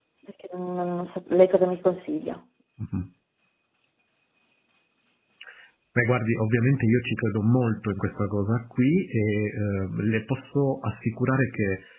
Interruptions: none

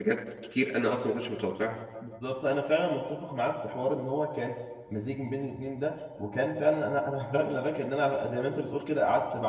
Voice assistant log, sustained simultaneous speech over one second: none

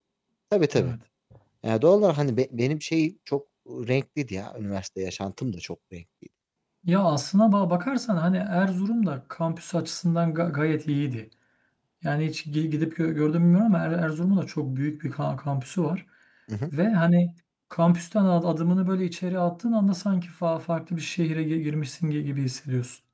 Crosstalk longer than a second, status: none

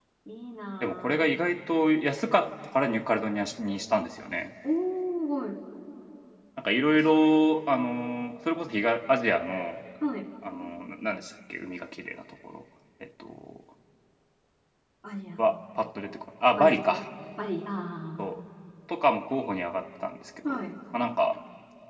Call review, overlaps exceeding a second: none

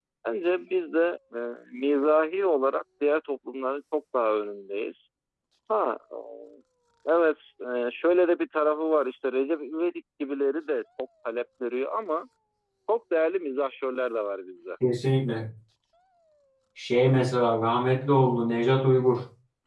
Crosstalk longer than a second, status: none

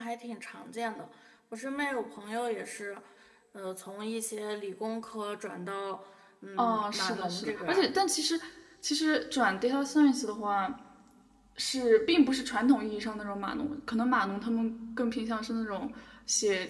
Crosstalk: present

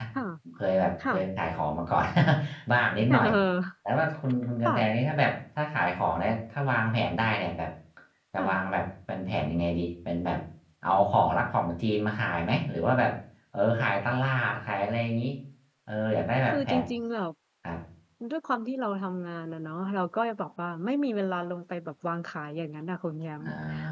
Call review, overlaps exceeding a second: none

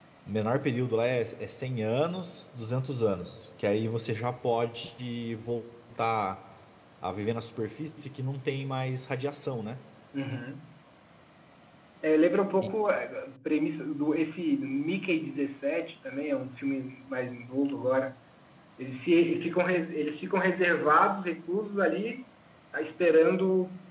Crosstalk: none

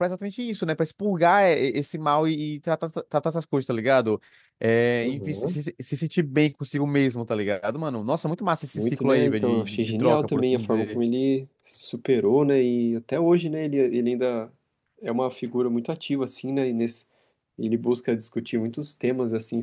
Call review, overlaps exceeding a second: present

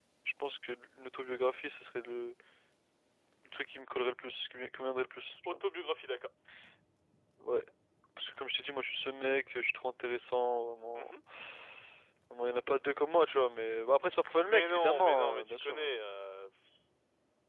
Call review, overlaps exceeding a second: present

